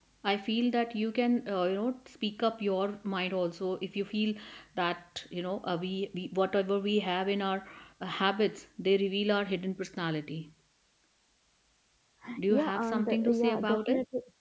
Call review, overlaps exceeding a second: present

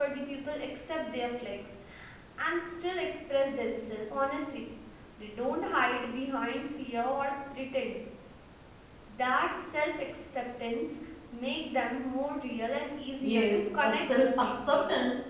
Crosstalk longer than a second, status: present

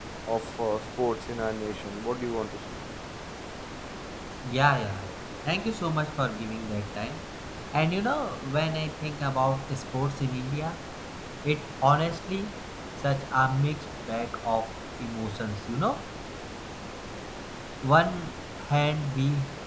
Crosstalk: none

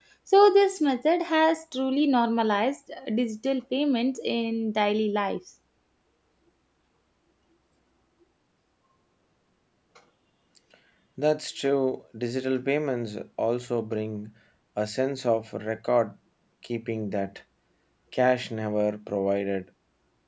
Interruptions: none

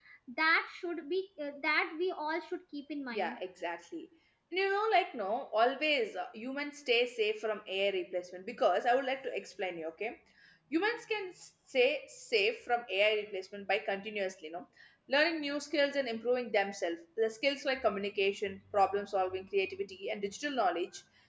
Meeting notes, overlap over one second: none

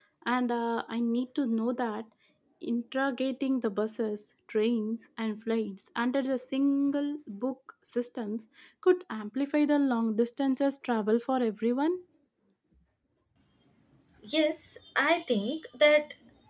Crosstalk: none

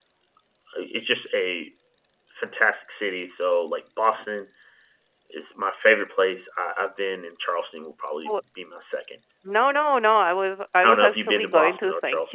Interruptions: present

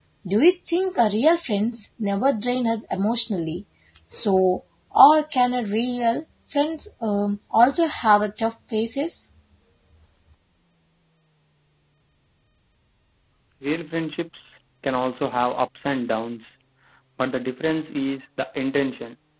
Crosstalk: none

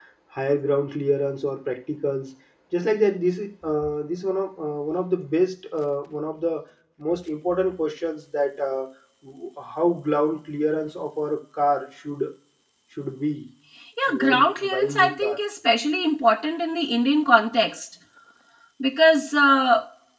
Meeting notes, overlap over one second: present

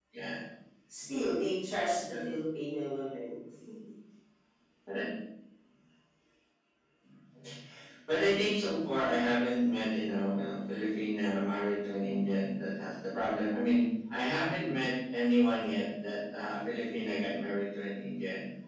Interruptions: none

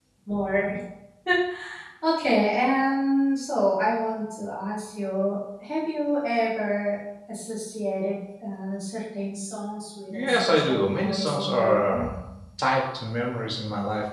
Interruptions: present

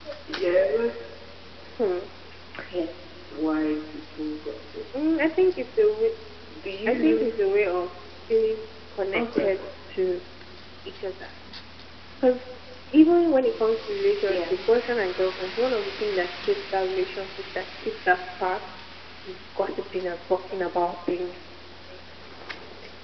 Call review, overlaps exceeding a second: none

